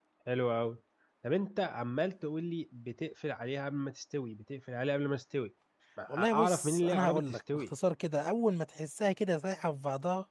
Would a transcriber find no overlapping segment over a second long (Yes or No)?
No